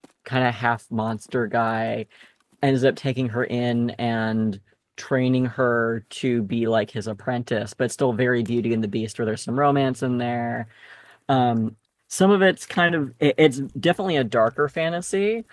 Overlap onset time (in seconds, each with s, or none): none